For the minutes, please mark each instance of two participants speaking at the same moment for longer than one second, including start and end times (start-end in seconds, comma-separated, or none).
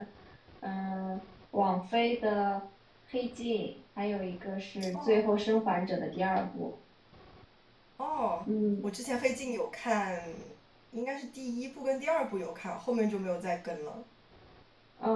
none